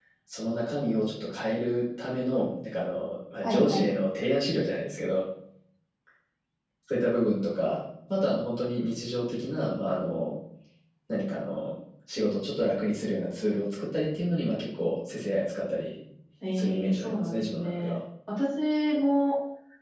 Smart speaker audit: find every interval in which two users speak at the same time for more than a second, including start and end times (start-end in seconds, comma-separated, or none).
16.6-17.9